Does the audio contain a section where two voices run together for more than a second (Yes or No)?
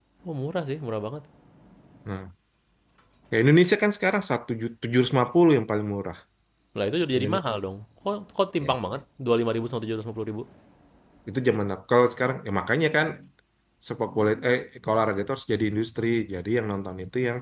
No